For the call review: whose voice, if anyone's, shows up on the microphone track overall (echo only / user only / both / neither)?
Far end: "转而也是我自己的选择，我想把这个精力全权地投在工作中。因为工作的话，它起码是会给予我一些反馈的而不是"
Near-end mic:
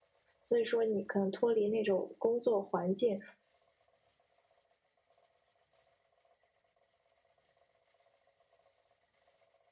user only